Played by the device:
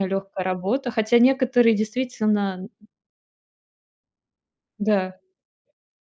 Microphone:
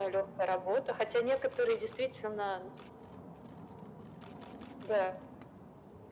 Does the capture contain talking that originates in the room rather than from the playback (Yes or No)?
No